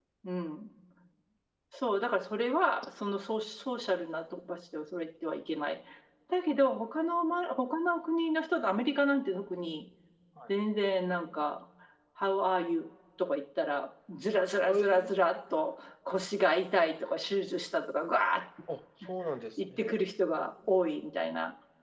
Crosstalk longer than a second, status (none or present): none